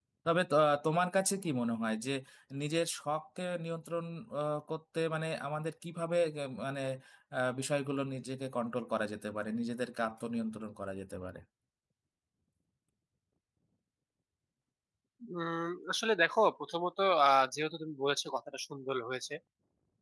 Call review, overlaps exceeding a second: none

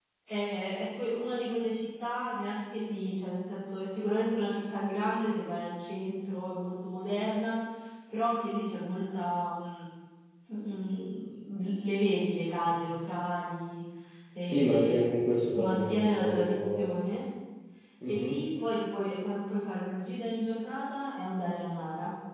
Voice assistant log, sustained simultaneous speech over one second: present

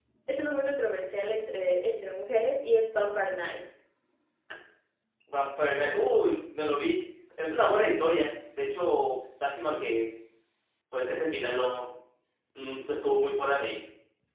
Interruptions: none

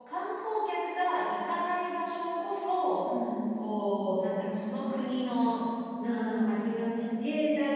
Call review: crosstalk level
none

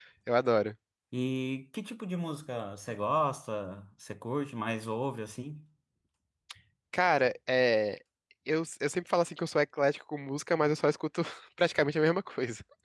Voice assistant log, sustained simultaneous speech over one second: none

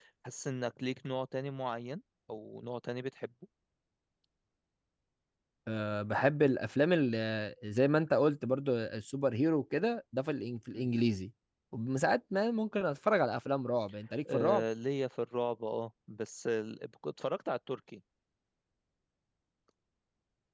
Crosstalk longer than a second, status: none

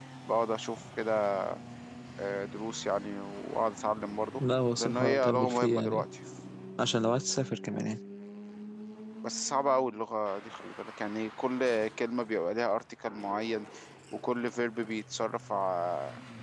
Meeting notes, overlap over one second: present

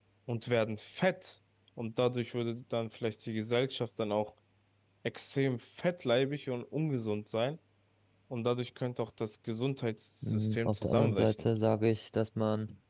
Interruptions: present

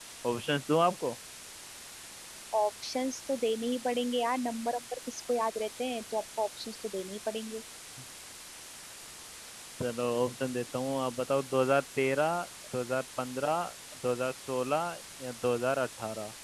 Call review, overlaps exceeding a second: none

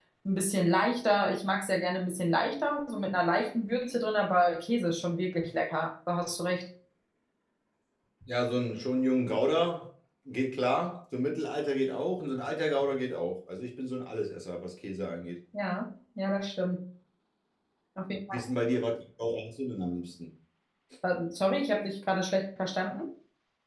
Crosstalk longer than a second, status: none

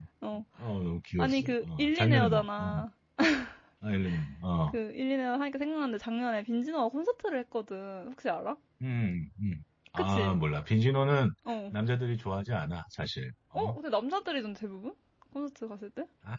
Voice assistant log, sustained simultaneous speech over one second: present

